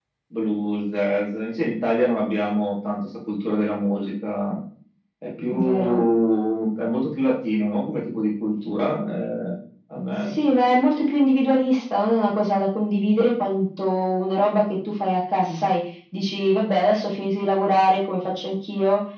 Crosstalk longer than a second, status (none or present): none